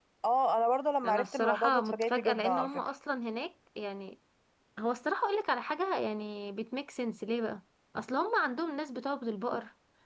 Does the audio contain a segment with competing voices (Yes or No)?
Yes